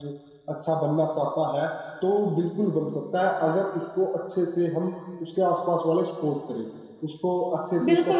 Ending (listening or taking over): taking over